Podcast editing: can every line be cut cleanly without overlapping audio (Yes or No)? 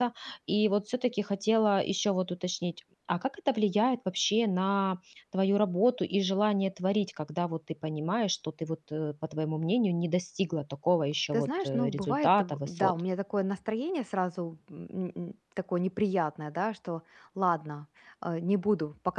No